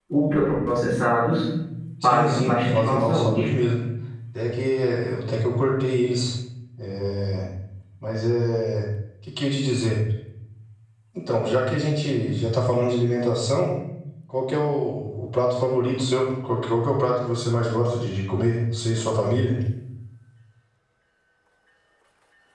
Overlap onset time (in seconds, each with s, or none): 2.0 s